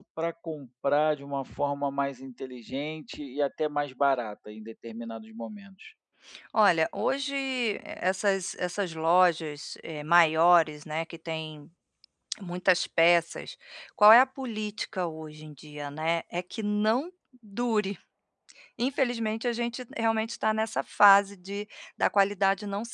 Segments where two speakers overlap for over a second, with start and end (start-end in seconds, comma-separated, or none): none